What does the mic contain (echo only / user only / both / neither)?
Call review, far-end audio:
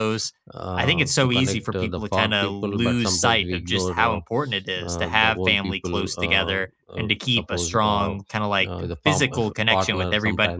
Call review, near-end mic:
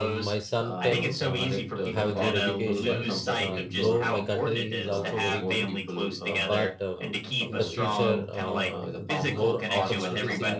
both